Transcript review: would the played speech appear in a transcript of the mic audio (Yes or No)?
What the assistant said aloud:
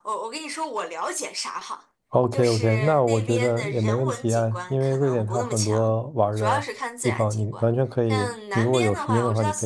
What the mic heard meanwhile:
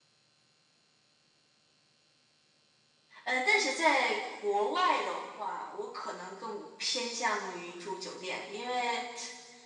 No